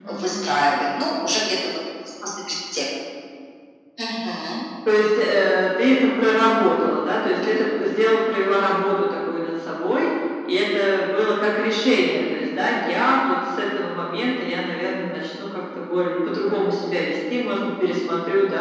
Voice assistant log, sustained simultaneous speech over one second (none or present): none